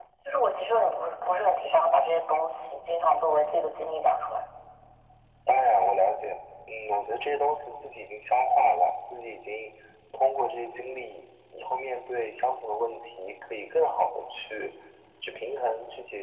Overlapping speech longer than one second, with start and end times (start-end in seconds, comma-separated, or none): none